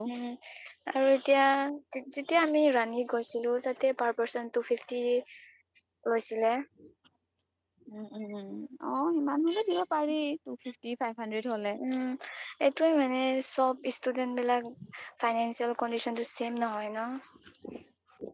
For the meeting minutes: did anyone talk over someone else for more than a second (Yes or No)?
No